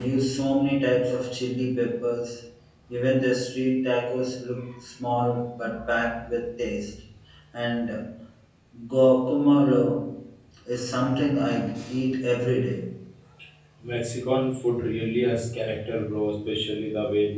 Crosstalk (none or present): none